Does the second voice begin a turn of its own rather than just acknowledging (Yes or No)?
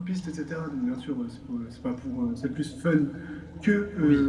No